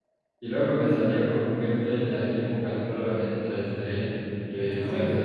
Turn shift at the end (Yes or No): No